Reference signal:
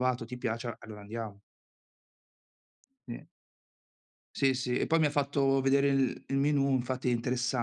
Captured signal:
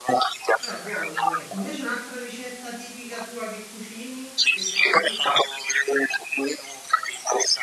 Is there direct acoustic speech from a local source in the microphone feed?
Yes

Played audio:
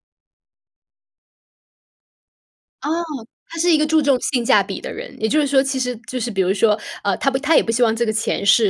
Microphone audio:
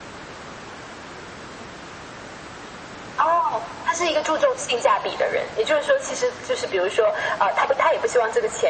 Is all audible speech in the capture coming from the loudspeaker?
Yes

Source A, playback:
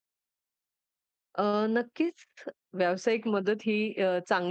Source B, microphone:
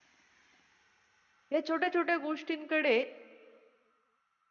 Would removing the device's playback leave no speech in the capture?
No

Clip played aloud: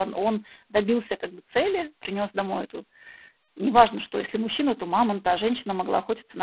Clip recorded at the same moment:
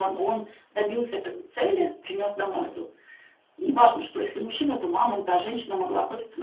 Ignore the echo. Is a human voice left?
No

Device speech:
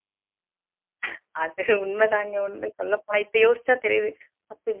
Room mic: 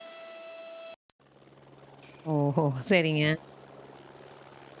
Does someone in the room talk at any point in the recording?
Yes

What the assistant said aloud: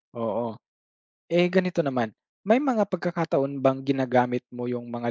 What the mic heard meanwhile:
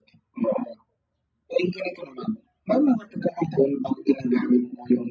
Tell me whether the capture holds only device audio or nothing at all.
Yes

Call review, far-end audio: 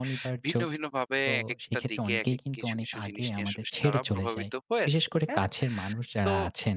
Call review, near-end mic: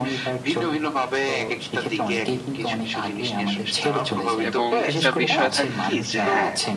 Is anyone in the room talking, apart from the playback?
Yes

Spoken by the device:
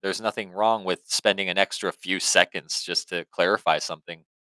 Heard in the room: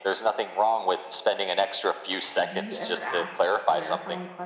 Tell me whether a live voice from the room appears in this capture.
Yes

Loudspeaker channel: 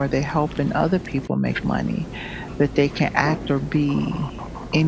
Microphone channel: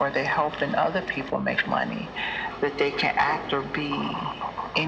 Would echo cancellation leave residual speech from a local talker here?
No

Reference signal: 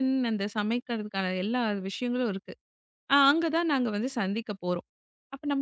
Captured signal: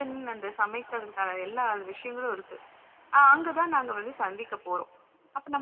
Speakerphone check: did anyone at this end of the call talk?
No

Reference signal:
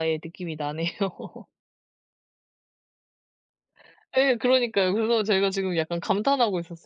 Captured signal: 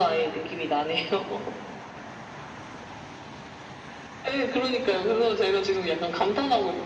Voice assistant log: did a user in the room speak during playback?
No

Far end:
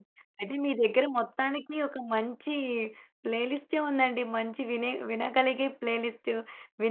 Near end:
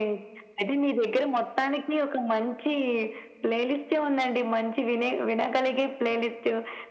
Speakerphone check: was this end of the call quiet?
Yes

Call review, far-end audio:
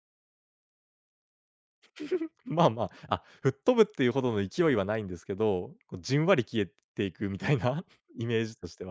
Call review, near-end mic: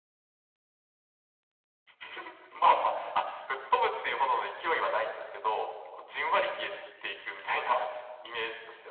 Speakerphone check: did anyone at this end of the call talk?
No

